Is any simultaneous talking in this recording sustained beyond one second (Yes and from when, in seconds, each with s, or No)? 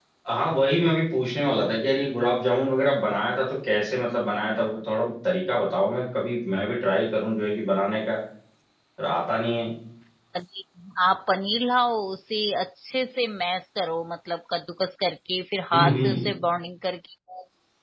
No